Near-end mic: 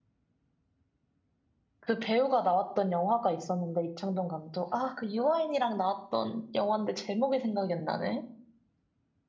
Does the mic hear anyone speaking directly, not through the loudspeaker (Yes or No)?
Yes